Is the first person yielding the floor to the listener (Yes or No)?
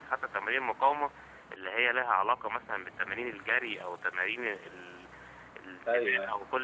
No